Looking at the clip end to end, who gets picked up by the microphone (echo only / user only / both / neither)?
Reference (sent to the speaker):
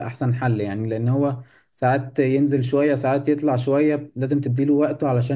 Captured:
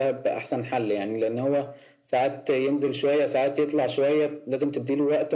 echo only